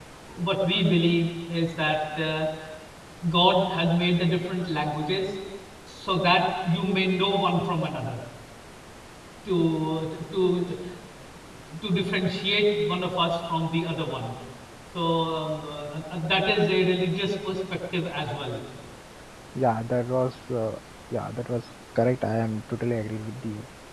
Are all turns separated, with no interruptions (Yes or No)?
Yes